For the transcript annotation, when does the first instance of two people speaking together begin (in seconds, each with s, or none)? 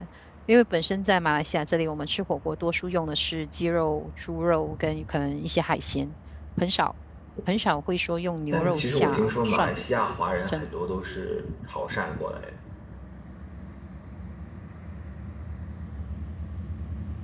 8.5 s